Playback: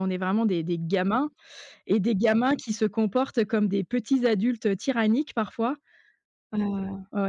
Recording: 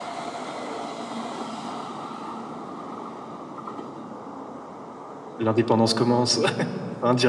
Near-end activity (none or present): present